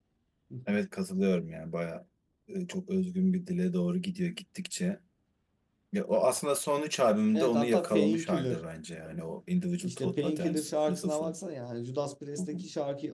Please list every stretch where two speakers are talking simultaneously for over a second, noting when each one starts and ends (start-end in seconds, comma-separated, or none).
7.3-8.6, 9.8-11.3